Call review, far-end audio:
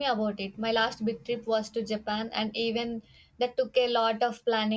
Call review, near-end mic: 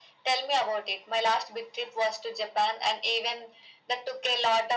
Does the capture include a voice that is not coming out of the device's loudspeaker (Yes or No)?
No